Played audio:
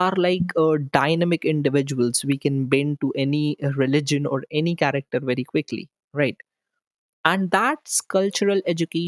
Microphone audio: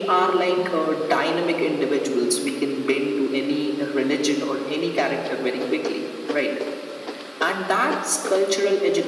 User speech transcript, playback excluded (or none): none